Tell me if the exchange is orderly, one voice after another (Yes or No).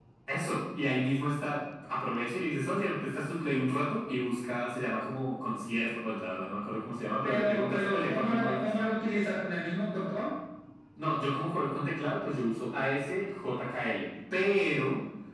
No